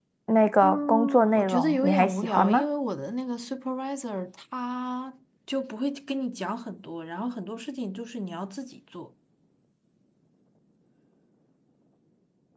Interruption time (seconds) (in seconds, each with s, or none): 0.6 s